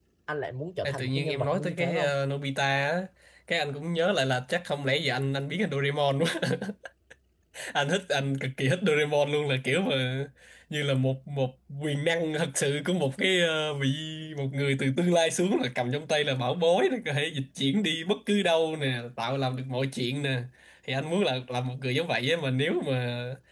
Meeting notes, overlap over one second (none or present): present